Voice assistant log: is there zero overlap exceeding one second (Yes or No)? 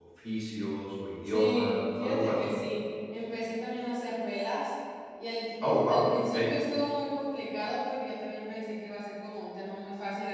No